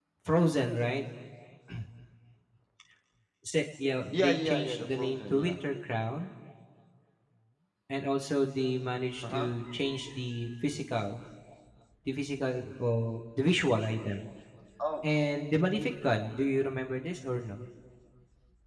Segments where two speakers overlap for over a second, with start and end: 4.1-5.6

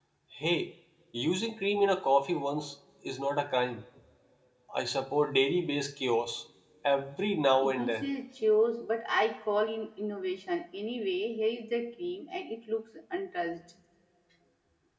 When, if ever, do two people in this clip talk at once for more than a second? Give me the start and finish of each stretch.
none

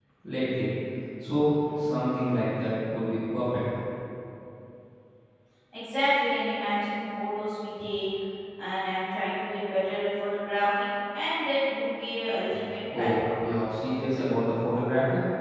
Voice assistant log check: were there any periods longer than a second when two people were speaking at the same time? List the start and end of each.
none

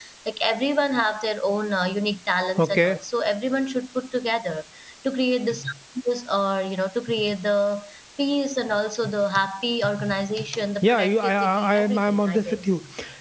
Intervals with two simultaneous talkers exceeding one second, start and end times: 10.8-12.7

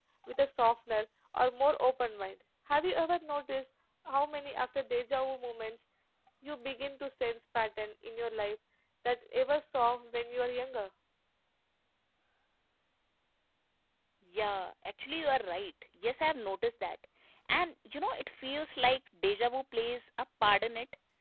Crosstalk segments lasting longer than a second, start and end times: none

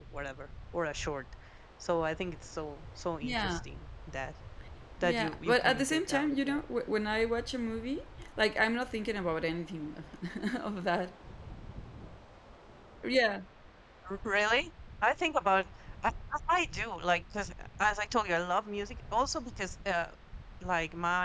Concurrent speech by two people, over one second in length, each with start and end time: 5.0-6.6

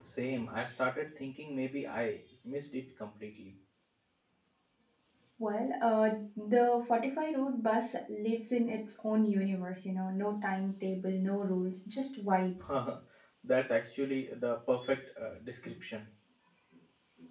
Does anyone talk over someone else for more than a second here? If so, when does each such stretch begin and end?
none

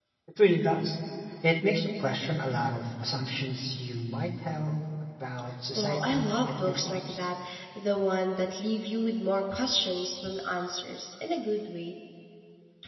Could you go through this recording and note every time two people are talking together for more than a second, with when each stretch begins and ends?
5.8-7.3

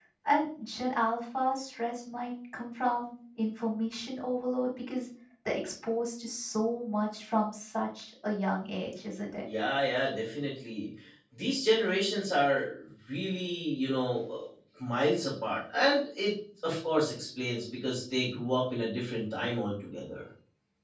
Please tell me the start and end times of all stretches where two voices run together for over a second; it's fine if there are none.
none

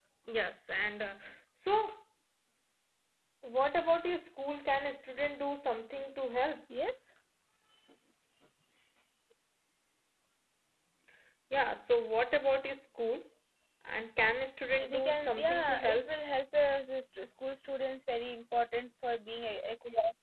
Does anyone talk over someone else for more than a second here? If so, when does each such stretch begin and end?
14.9-16.1

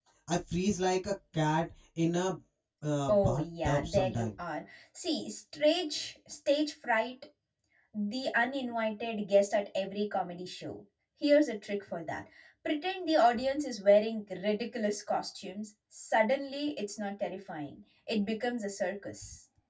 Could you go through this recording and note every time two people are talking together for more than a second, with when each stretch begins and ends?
3.1-4.3

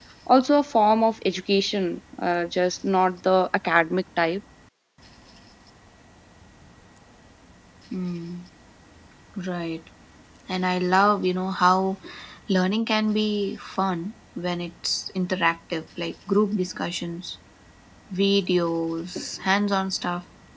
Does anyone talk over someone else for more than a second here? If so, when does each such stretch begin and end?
none

